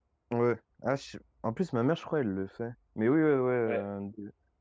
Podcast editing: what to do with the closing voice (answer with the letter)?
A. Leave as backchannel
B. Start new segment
A